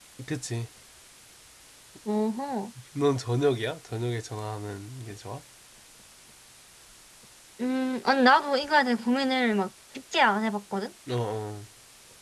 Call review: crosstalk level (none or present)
none